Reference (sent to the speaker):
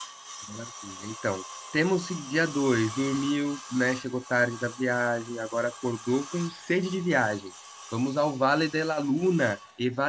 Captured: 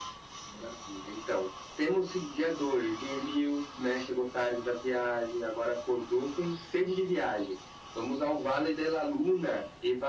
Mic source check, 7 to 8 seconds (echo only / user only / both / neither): echo only